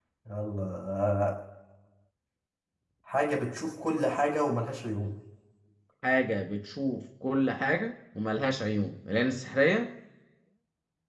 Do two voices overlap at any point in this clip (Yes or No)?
No